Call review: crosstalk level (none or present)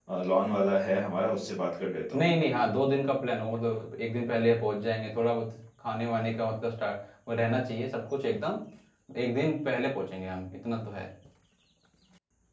none